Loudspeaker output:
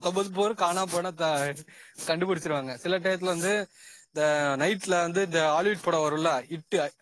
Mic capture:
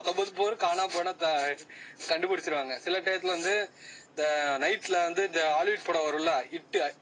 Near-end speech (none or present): none